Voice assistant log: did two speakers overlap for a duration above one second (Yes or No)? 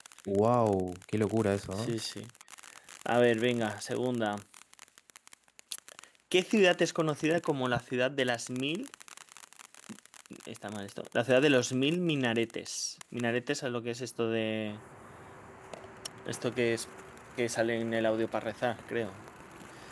No